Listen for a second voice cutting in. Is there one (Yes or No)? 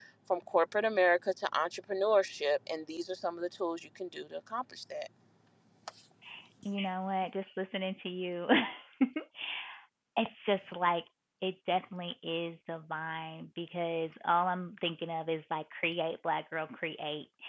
No